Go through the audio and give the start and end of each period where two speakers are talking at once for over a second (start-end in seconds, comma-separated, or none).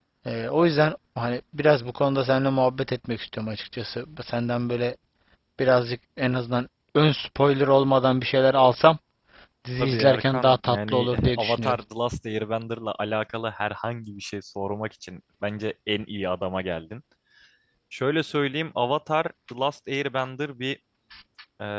9.8-11.8